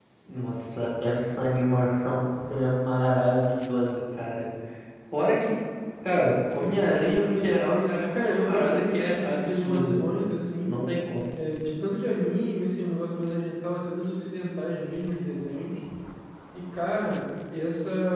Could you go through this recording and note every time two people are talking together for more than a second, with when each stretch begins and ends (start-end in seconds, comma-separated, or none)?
8.1-10.0